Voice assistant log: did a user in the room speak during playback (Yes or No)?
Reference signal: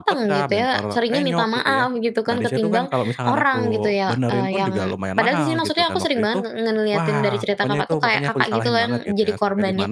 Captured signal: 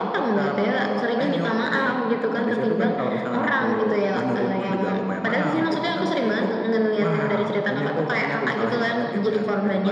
No